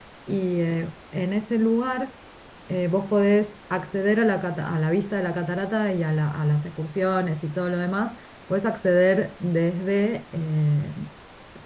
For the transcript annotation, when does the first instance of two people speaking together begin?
none

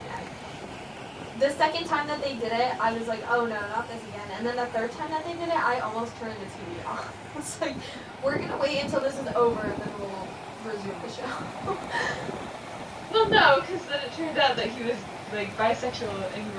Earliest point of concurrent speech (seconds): none

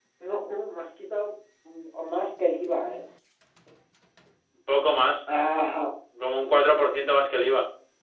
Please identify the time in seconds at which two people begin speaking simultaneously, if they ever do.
none

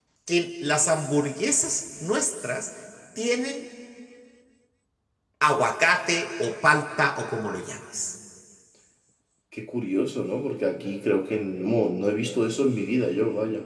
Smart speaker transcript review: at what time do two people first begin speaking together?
none

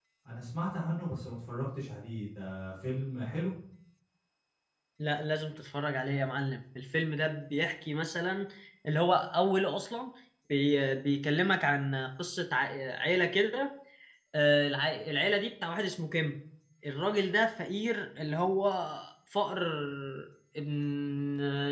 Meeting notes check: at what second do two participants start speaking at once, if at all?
none

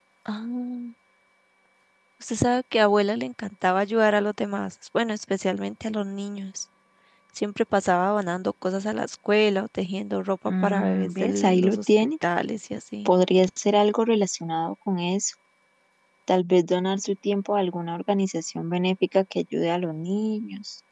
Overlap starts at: 10.5 s

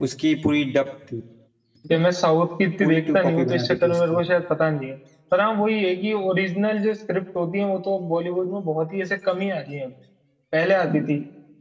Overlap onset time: 2.8 s

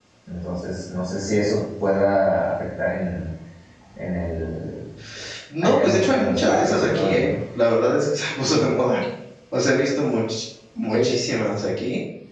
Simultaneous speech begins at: 5.6 s

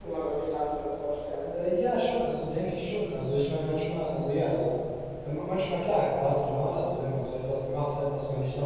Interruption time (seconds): none

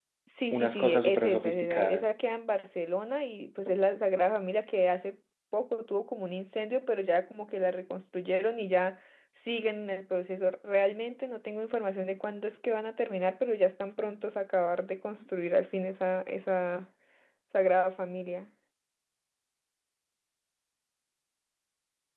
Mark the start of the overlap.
0.5 s

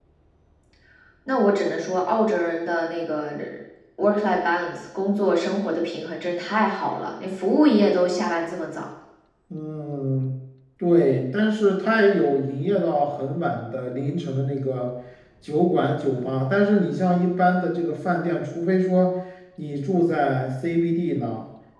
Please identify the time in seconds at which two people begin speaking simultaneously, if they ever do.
none

